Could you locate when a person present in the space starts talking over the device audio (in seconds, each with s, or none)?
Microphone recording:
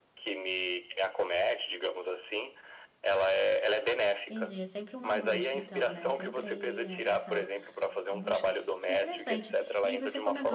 4.3 s